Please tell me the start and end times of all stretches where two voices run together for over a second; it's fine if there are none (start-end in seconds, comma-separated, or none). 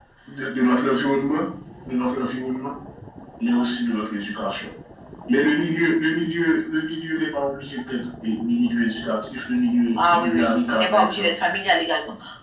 10.0-11.3